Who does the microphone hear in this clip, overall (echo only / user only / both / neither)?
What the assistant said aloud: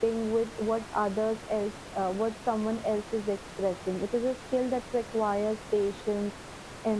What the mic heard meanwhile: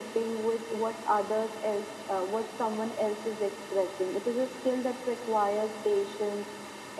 echo only